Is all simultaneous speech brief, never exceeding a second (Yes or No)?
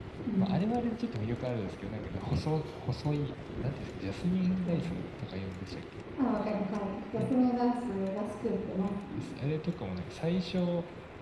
Yes